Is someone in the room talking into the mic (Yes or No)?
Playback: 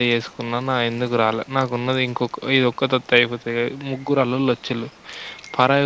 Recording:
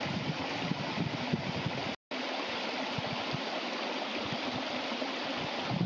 No